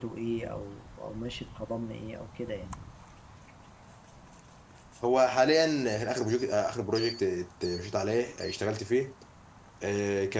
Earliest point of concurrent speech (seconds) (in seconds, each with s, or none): none